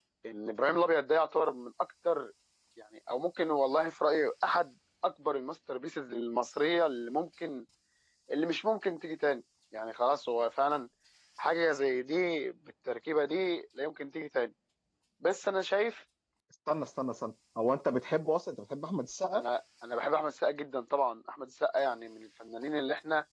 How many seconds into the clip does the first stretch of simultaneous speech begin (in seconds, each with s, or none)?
none